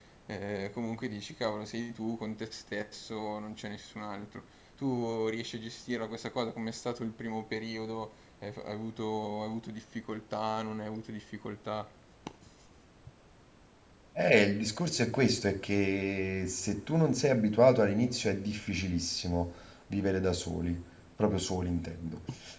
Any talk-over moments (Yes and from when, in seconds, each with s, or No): No